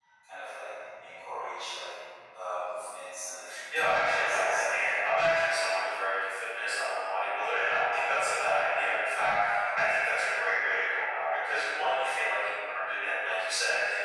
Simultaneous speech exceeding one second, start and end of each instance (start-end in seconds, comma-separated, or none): 3.7-4.9